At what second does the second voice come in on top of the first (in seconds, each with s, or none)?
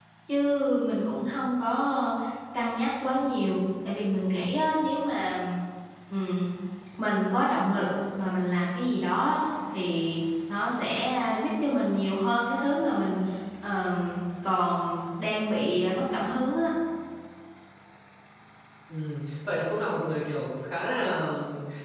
none